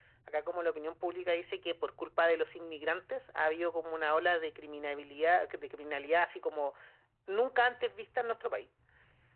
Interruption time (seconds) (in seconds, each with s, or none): none